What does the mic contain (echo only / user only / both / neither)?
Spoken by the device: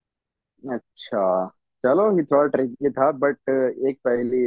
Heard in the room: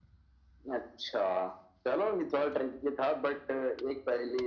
echo only